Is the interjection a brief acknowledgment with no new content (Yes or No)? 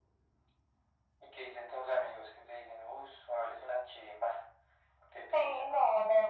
No